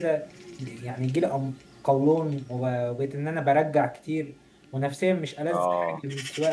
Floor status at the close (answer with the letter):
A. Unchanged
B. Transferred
A